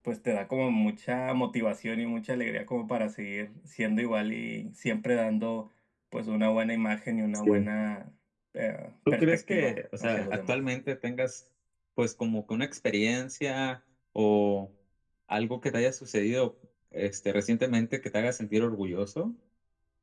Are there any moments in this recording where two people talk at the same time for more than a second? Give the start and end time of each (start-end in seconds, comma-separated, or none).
9.1-10.5